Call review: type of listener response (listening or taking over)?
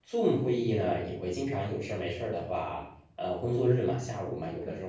listening